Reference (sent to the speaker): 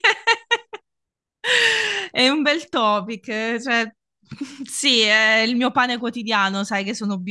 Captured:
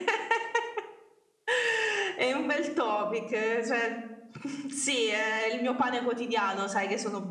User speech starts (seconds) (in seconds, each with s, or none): none